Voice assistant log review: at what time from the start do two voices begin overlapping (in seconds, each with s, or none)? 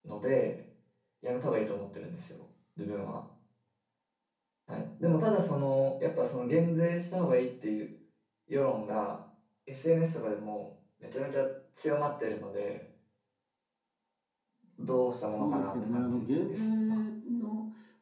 15.2 s